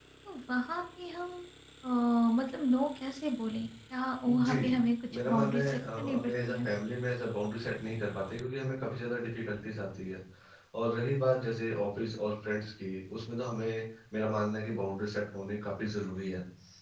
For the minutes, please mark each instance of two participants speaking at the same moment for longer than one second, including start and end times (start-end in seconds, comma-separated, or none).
5.1-6.7